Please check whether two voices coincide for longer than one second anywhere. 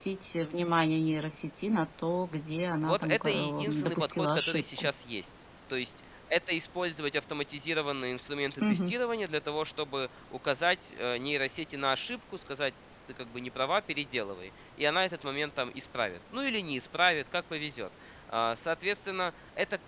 Yes, from 2.8 s

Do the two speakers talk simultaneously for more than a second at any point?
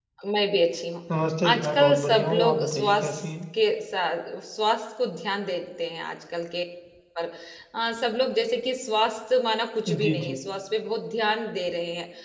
Yes, from 1.5 s

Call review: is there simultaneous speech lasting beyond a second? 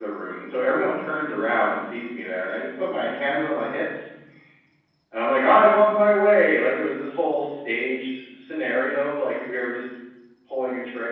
No

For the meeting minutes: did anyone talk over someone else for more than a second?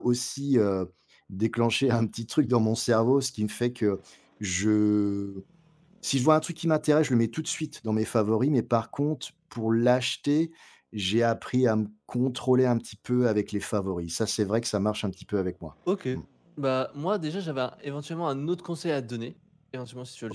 No

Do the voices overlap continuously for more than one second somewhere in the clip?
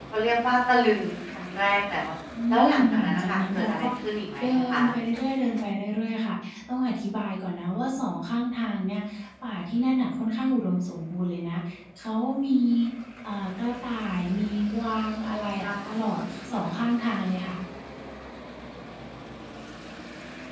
Yes, from 2.5 s

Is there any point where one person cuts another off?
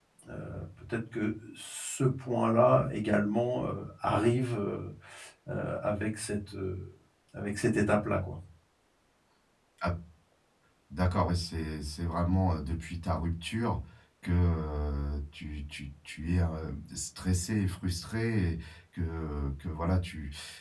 No

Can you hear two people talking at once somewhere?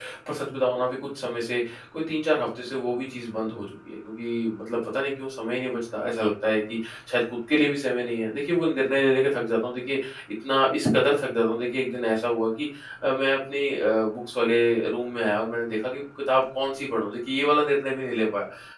No

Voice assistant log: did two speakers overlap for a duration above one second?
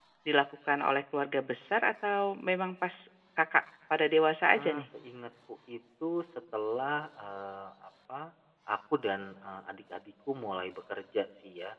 No

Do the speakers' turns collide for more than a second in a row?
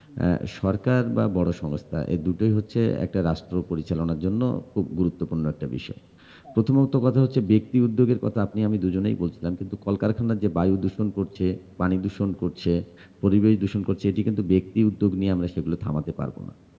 No

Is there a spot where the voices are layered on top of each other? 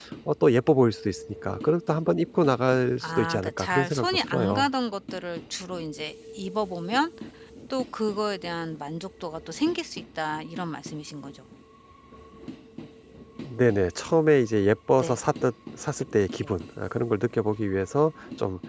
Yes, from 3.0 s

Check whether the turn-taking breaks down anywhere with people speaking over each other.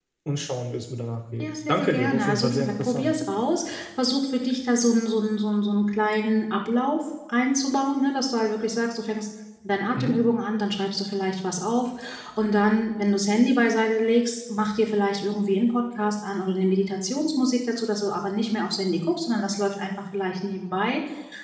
Yes, from 1.4 s

